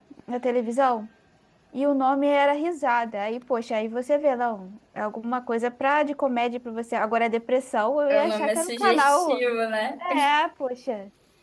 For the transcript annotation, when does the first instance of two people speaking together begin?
8.1 s

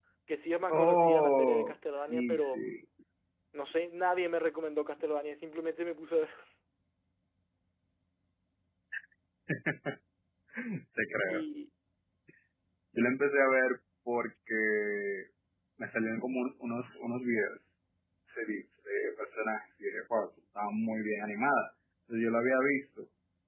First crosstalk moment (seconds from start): 0.7 s

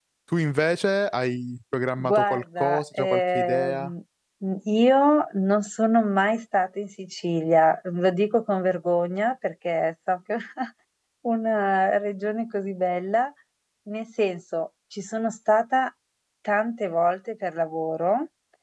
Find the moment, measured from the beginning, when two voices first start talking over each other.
2.0 s

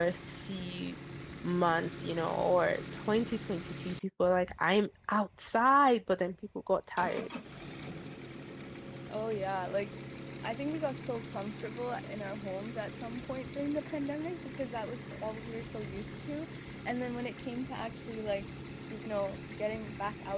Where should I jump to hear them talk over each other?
none

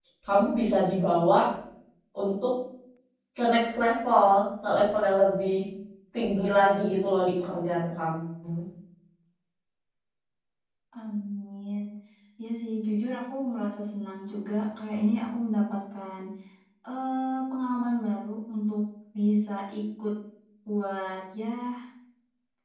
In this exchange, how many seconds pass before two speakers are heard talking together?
none

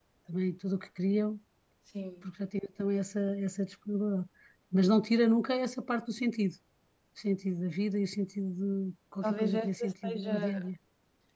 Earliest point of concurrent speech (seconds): 9.2 s

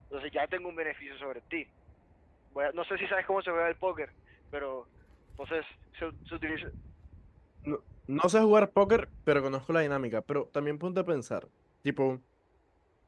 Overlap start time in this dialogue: none

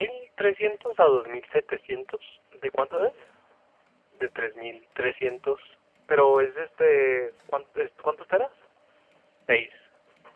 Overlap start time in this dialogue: none

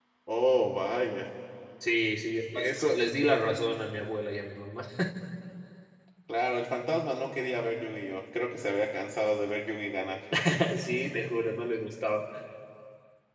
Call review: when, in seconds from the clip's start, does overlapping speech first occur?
none

